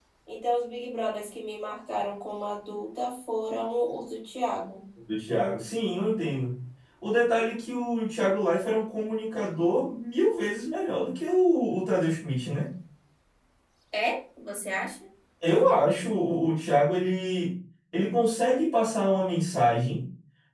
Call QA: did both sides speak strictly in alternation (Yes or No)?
Yes